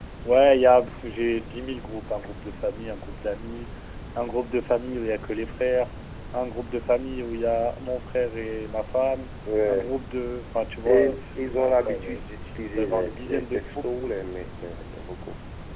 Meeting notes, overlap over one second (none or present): present